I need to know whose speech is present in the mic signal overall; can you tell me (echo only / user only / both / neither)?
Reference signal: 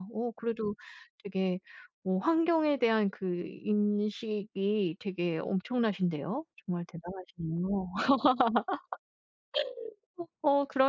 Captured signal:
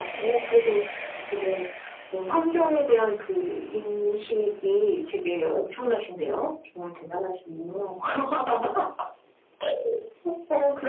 echo only